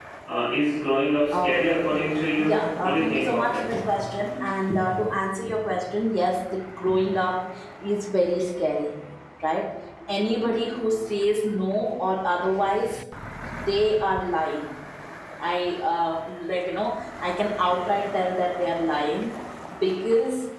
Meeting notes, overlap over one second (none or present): present